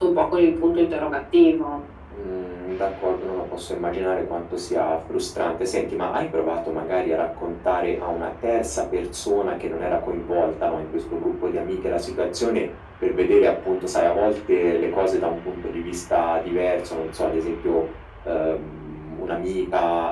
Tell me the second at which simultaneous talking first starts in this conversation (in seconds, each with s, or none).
none